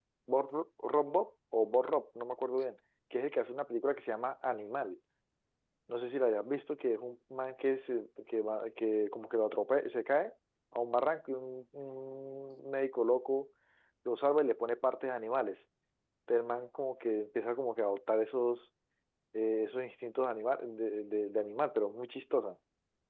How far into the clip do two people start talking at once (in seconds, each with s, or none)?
none